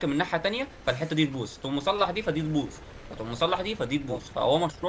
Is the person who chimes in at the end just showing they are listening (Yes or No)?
Yes